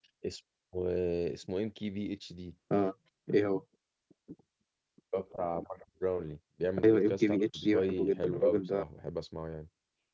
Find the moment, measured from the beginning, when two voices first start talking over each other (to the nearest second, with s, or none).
7 s